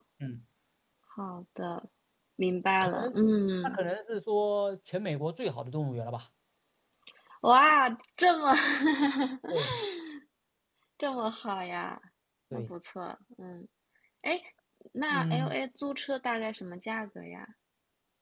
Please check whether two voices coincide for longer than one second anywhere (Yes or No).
No